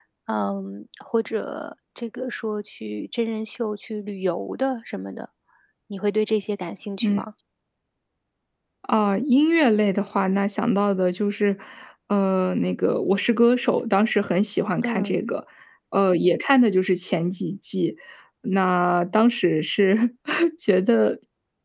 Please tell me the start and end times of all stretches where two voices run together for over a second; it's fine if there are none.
none

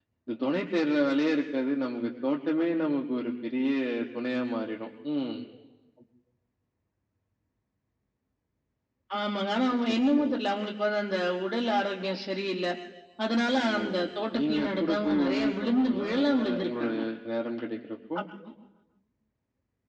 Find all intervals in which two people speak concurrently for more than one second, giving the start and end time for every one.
14.3-16.9

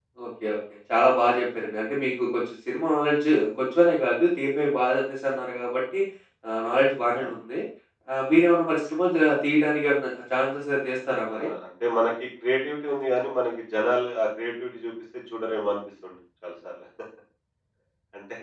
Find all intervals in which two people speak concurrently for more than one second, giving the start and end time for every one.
none

